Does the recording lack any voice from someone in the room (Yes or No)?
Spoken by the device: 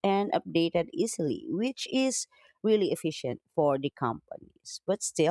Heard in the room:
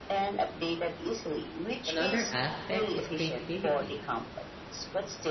No